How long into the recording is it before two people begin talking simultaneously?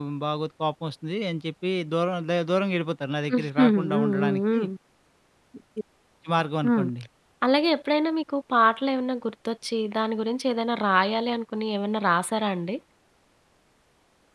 3.3 s

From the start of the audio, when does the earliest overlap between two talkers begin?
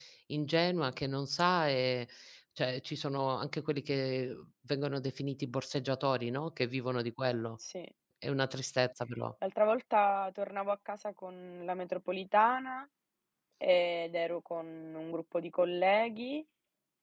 none

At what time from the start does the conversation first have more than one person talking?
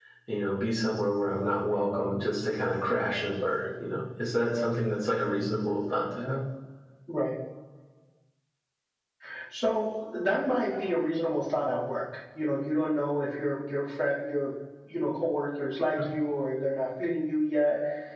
none

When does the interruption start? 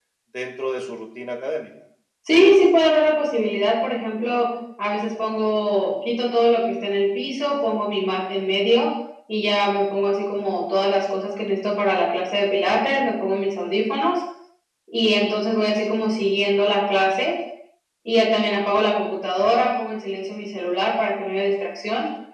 none

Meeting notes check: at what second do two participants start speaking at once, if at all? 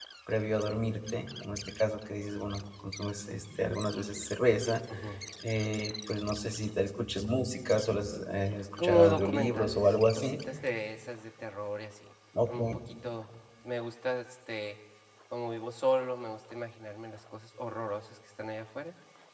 8.8 s

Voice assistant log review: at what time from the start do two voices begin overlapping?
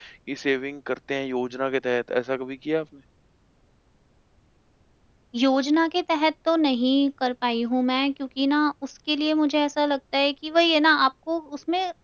none

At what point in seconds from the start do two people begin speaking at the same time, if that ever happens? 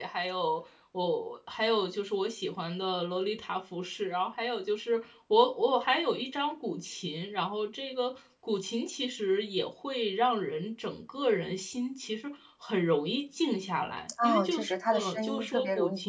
14.2 s

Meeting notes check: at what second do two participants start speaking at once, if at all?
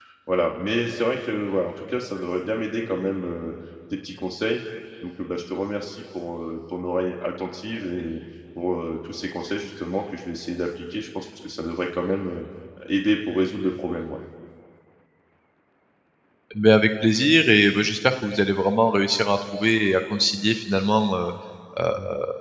none

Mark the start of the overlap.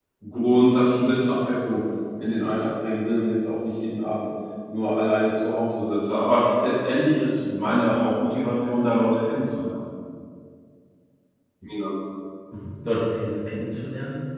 none

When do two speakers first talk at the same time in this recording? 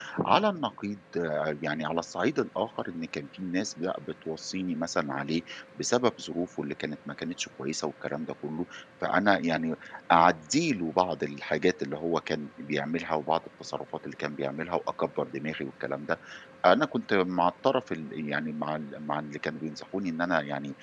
none

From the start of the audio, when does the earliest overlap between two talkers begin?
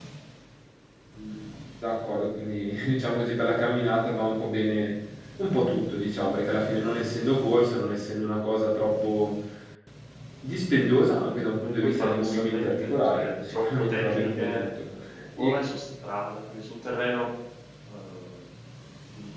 11.8 s

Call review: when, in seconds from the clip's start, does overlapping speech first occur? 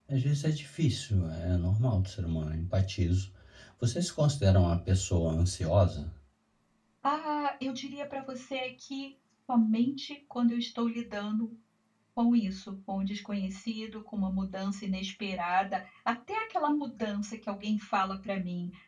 none

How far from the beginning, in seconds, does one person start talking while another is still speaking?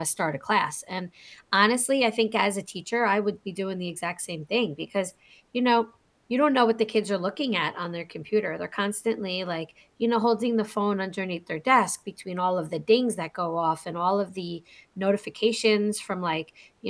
none

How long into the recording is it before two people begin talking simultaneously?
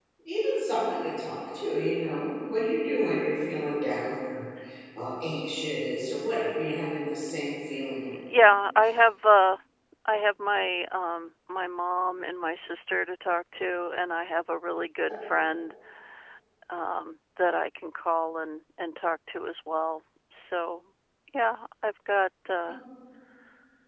none

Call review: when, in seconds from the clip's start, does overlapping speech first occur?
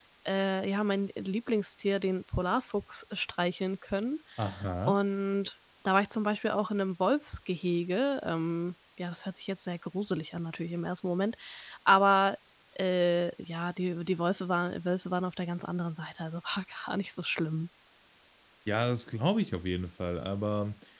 none

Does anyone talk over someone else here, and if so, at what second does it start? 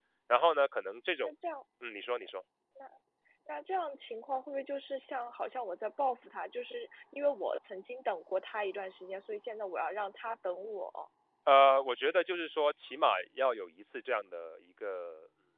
none

